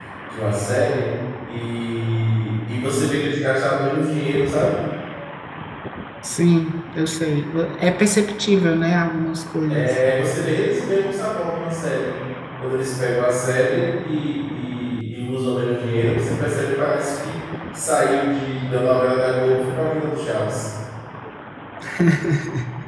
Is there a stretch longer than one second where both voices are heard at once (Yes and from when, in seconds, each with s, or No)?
No